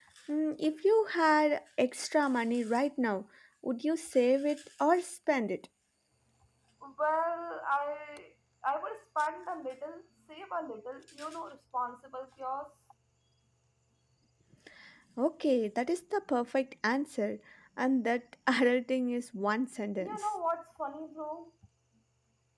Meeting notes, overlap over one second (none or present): none